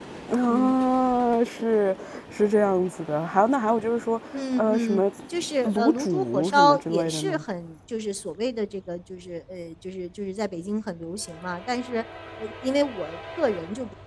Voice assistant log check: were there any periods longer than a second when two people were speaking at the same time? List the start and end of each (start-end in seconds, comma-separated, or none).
5.6-7.4